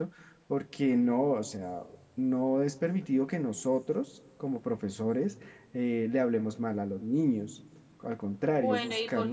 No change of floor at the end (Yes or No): No